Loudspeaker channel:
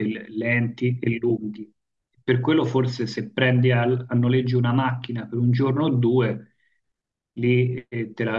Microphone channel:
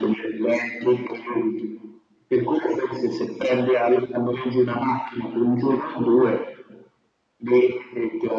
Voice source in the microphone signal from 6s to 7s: echo only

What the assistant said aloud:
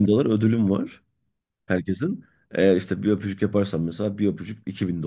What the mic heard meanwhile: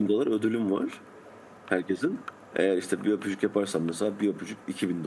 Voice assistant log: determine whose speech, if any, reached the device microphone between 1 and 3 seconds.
echo only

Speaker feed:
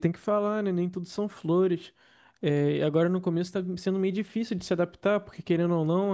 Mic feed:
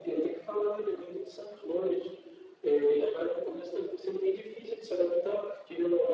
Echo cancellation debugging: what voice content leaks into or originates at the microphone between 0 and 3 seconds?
echo only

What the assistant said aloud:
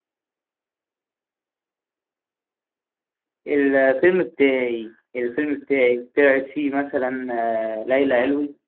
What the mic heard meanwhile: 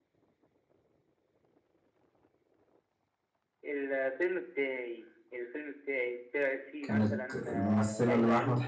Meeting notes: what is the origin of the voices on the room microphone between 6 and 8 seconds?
both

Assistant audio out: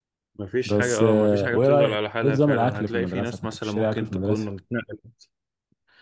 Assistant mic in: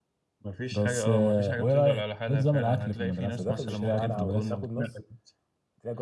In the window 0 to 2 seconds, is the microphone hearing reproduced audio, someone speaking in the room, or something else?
echo only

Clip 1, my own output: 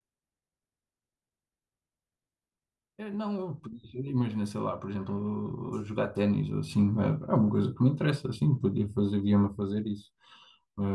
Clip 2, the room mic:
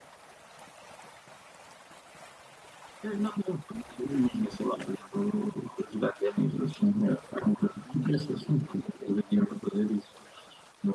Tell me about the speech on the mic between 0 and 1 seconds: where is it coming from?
neither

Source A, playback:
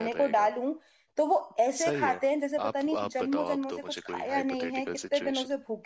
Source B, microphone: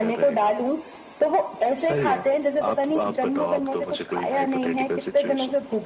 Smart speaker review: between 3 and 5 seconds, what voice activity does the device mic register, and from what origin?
echo only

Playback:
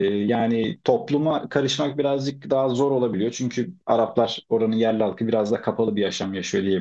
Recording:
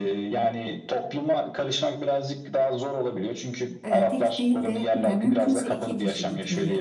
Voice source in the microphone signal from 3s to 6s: both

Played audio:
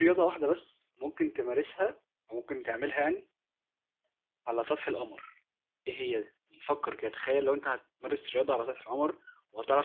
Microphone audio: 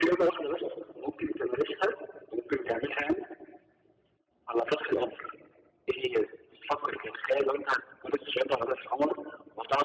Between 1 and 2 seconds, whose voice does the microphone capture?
echo only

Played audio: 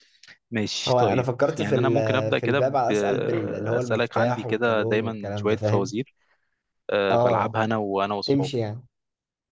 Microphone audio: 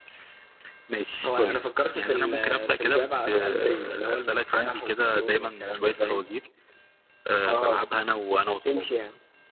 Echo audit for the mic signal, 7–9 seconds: echo only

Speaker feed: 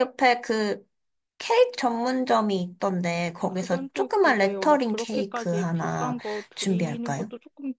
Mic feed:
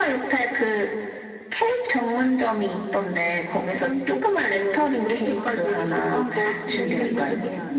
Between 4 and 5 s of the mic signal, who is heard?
echo only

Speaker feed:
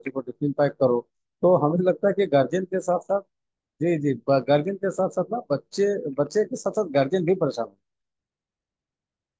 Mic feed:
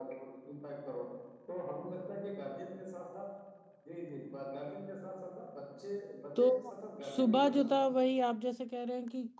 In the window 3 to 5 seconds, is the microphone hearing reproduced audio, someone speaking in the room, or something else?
echo only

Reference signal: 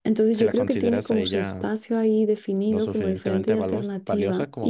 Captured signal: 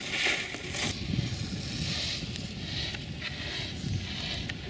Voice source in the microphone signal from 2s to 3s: neither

